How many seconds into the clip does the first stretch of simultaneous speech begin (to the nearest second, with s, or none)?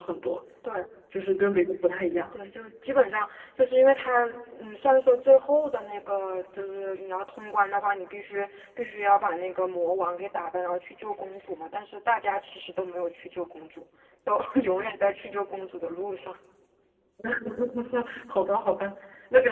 none